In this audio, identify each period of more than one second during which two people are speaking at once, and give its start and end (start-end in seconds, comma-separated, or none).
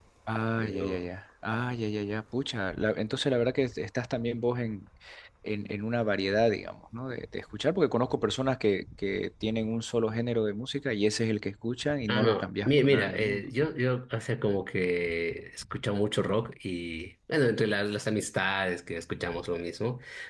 12.1-13.4